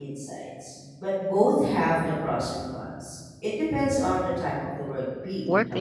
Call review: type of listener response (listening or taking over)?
taking over